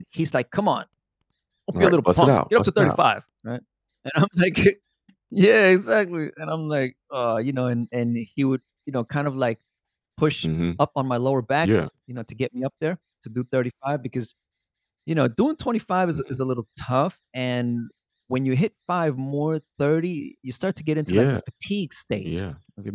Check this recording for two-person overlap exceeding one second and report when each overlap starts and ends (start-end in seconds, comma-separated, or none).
1.8-3.0